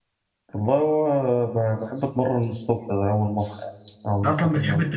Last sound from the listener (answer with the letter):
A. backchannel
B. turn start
B